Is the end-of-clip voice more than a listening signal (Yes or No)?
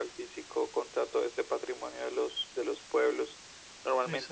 No